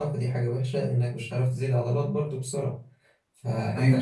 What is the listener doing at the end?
listening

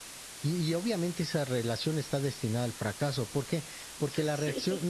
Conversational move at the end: listening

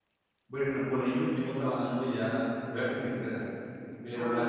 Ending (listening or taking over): listening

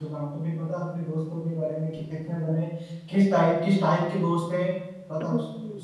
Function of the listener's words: taking over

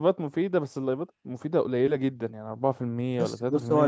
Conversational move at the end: taking over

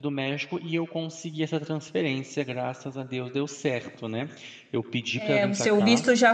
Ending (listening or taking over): taking over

